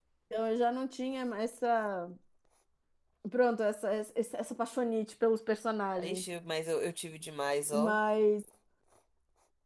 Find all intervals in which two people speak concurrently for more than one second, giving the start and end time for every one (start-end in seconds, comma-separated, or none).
none